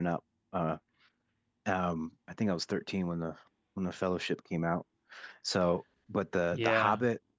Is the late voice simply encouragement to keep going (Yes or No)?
Yes